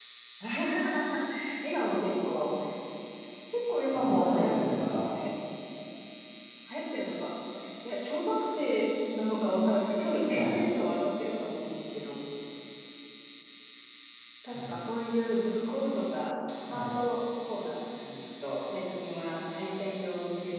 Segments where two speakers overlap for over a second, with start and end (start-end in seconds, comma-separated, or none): 3.9-5.2